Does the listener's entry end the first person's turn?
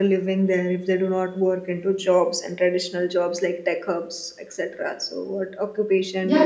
Yes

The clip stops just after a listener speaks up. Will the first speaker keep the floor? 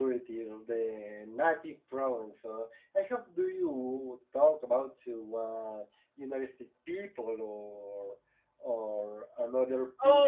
Yes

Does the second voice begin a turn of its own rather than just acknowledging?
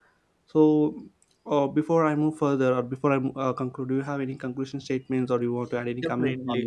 Yes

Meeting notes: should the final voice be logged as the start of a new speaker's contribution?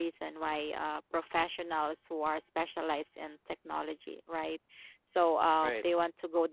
No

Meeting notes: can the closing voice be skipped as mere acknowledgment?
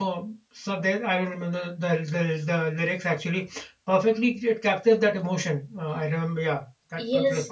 No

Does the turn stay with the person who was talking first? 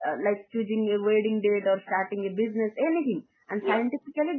Yes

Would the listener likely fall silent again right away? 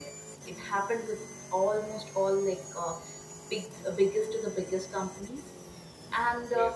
Yes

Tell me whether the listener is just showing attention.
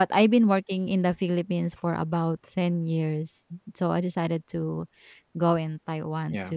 Yes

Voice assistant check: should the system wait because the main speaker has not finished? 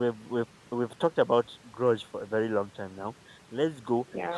Yes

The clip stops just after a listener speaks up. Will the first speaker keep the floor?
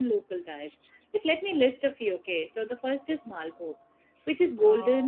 Yes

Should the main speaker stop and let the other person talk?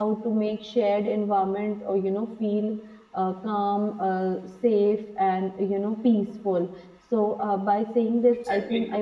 No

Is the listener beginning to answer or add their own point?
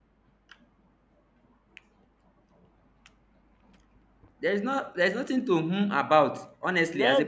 Yes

